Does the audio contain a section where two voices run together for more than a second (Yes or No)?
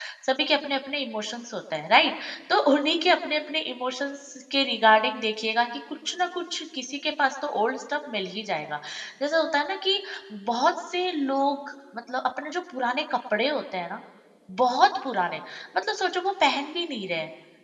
No